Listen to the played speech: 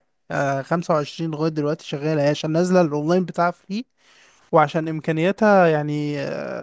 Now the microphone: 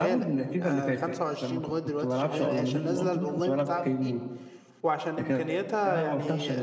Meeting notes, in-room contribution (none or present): present